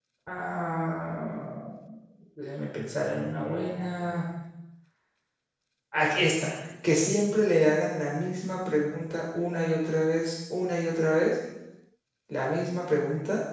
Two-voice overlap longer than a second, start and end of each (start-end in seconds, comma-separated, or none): 2.8-4.1